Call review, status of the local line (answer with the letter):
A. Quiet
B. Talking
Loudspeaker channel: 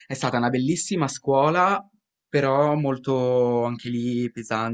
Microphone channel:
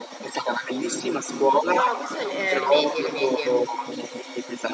B